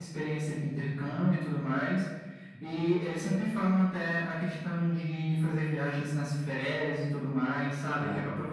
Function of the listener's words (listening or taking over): listening